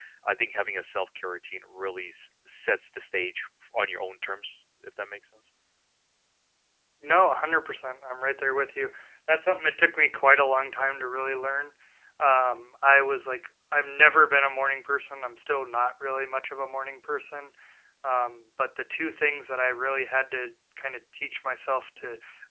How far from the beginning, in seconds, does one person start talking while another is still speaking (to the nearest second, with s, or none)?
none